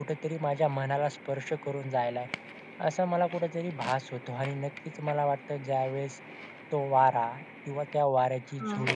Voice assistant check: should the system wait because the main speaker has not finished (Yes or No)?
Yes